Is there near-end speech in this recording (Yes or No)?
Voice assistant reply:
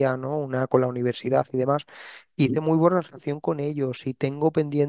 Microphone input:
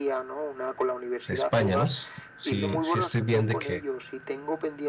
Yes